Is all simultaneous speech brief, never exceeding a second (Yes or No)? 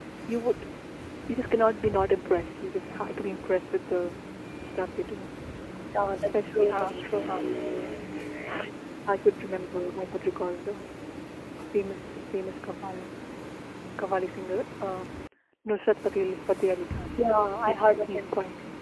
No